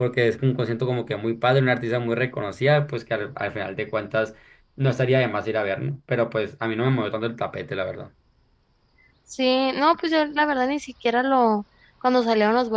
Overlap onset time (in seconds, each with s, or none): none